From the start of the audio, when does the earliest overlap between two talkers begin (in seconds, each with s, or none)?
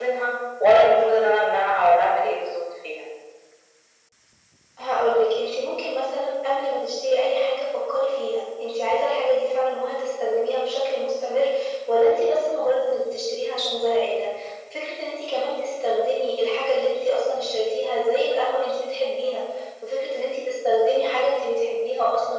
none